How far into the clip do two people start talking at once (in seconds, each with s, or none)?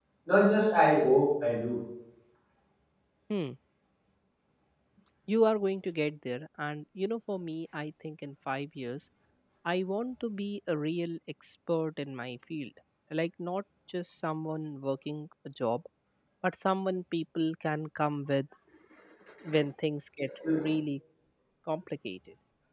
none